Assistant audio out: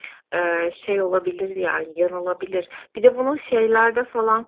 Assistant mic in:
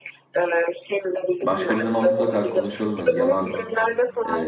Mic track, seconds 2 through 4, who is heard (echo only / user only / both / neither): both